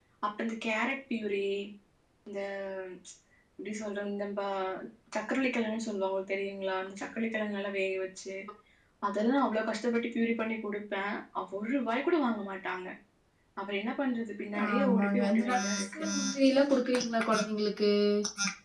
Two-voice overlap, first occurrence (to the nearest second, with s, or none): 15 s